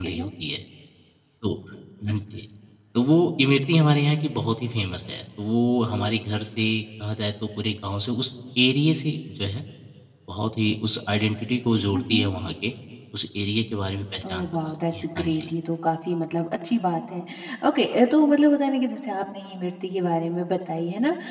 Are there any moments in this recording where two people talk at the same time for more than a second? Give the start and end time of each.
14.3-15.5

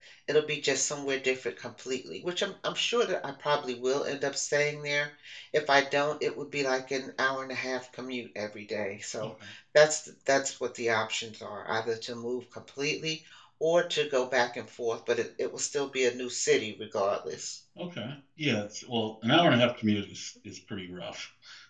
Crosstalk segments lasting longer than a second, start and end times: none

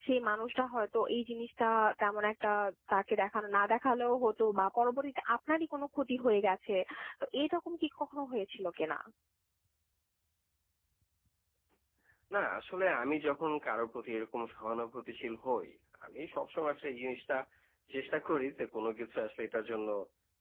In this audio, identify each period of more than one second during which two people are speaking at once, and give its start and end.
none

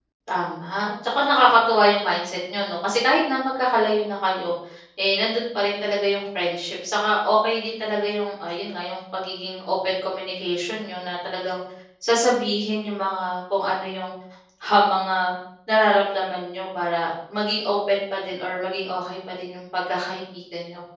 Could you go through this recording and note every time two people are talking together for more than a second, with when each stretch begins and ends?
none

